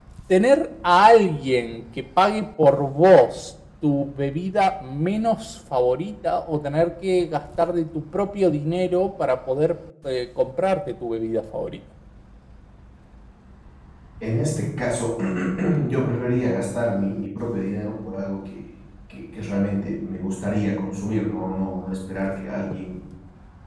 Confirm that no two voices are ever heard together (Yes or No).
Yes